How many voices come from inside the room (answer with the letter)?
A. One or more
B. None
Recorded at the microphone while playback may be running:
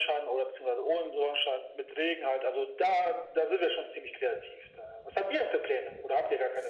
B